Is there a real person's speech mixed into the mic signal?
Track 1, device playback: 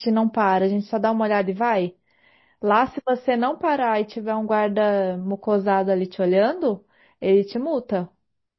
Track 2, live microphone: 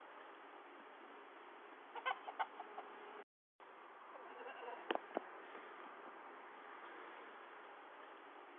No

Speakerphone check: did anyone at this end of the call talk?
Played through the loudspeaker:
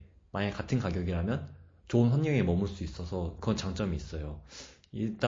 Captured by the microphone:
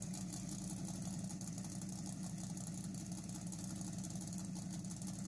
No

